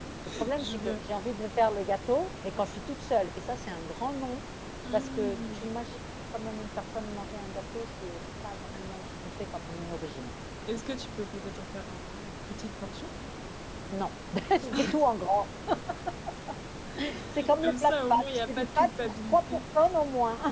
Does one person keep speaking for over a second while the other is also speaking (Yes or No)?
Yes